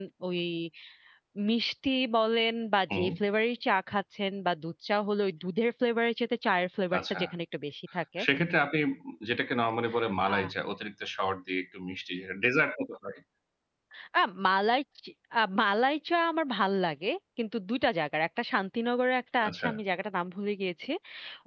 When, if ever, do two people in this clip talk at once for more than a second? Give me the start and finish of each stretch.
none

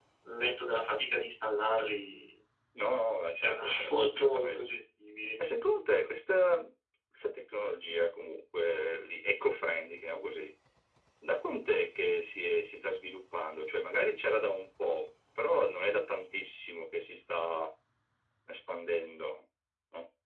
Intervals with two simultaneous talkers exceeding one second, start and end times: 3.4-4.7

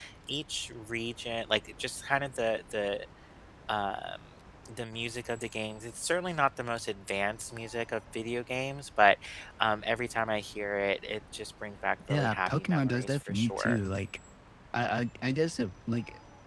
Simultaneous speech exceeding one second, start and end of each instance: 12.1-13.8

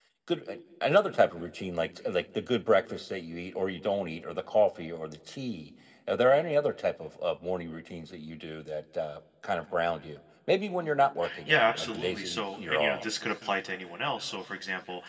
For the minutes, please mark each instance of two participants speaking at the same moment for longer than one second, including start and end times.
11.4-13.0

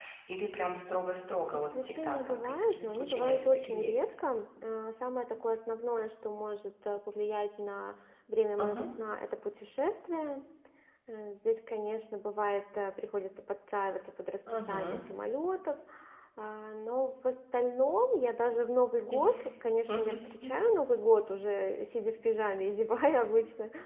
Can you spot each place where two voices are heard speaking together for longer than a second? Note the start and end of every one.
1.5-4.0

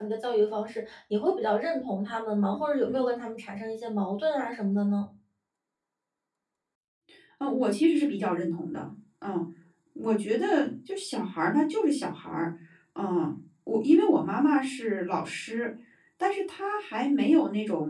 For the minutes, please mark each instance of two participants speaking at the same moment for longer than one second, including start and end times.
none

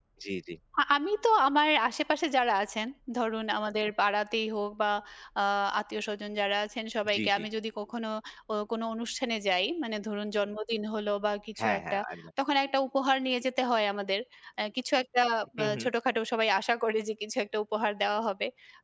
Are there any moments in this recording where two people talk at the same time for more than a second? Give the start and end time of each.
none

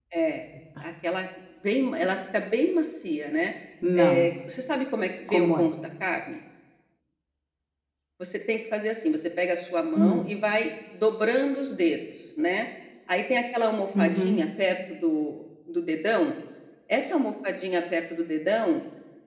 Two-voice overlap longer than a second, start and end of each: none

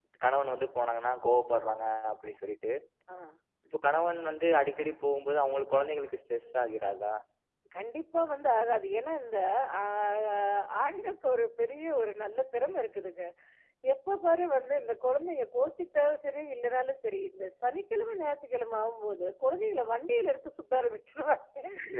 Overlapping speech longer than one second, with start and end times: none

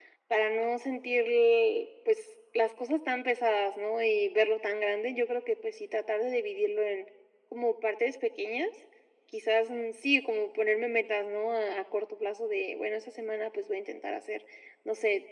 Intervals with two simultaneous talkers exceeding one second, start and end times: none

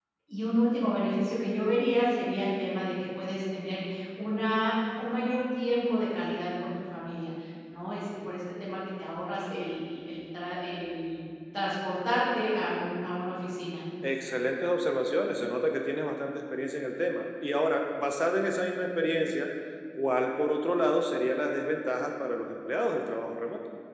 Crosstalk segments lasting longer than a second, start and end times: none

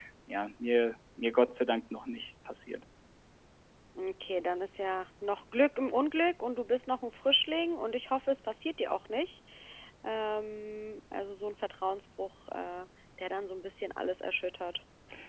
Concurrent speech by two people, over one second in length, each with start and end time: none

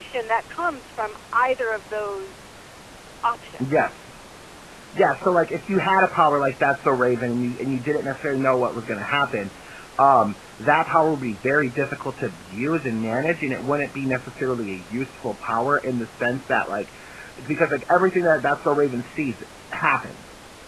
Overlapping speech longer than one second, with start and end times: none

